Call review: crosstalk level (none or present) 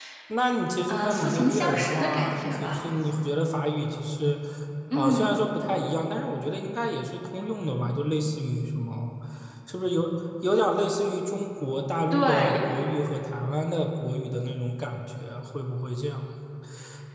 present